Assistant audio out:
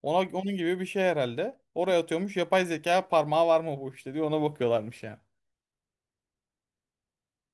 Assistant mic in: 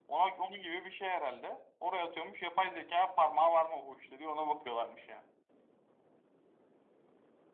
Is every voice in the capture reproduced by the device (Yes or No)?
Yes